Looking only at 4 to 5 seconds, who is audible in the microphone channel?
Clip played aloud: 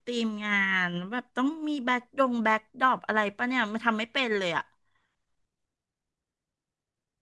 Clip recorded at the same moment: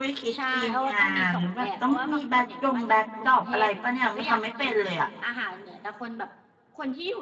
both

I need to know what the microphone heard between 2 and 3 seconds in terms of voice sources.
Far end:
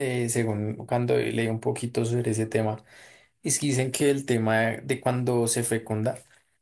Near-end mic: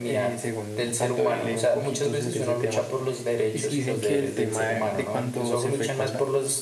both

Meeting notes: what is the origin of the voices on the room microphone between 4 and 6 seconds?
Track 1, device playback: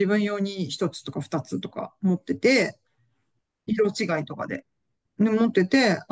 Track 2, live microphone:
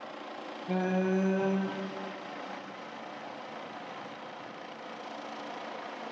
neither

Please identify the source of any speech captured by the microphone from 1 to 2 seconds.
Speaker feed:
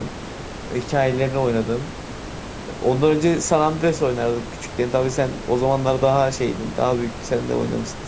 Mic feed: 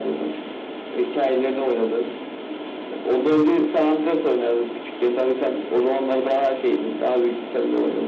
echo only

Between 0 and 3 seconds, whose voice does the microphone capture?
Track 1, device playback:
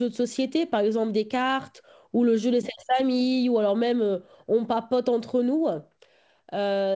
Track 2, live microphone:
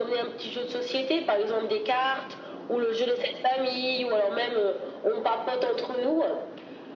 echo only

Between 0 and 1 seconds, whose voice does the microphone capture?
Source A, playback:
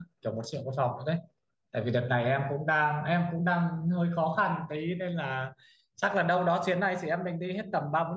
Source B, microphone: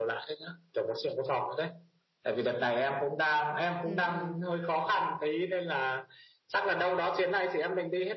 echo only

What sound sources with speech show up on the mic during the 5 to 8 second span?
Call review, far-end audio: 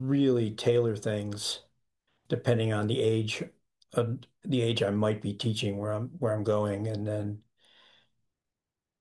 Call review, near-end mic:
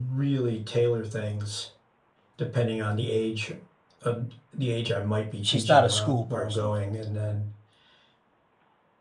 both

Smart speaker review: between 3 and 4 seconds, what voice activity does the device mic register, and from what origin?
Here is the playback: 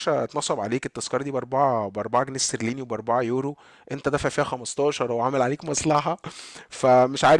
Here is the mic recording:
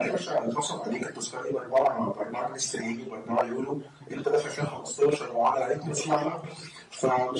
echo only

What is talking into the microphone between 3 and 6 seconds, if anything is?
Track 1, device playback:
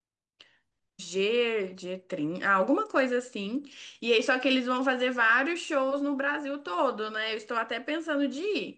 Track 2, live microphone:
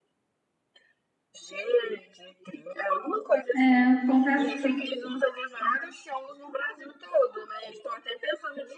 both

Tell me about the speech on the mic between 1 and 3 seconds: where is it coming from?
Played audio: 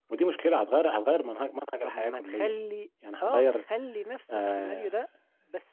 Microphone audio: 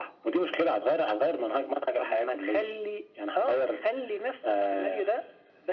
echo only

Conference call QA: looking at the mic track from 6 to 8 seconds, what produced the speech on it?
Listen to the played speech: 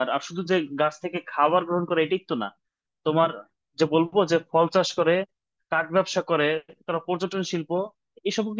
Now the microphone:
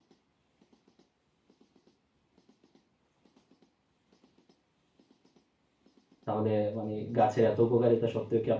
user only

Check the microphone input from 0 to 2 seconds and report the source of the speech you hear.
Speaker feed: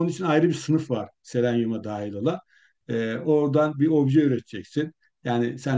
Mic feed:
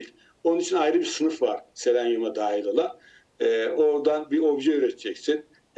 echo only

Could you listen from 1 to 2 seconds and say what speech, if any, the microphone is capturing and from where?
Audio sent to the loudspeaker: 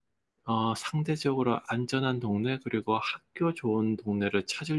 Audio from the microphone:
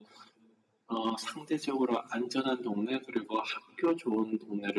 echo only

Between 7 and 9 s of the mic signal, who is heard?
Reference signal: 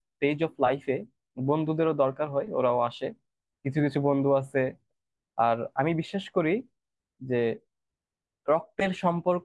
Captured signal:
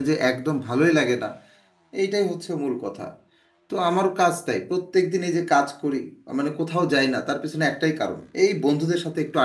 user only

